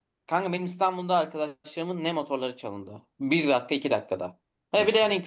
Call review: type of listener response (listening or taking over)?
listening